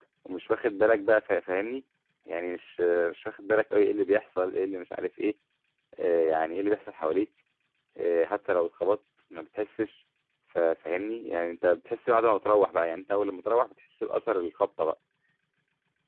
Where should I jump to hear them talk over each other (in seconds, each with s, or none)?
none